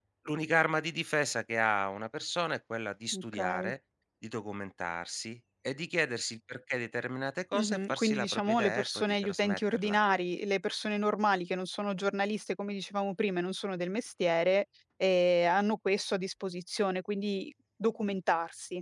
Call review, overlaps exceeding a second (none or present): present